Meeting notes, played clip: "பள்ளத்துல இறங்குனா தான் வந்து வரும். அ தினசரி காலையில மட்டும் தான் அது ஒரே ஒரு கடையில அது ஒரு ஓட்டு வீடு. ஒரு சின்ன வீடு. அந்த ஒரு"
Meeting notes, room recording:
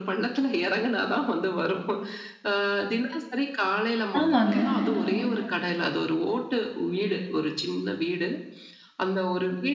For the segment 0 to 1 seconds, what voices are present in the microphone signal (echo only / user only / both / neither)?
echo only